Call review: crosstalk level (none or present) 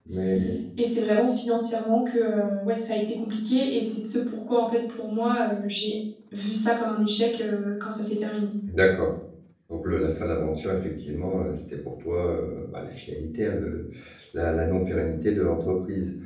none